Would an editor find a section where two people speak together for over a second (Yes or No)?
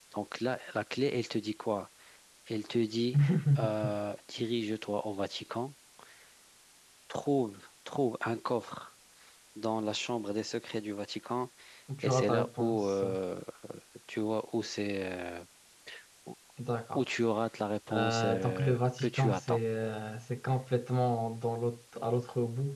Yes